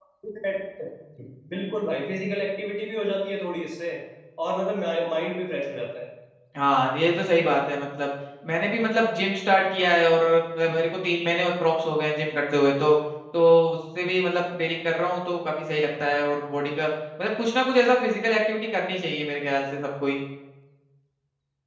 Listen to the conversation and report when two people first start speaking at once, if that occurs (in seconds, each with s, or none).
none